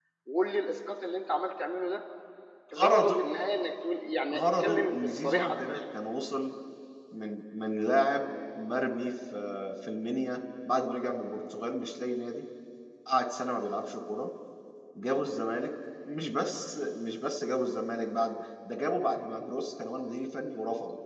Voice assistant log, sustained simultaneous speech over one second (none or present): present